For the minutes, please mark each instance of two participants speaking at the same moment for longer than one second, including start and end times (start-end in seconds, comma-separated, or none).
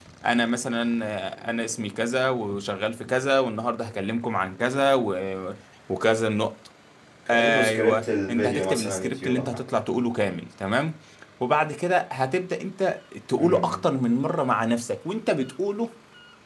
7.3-9.6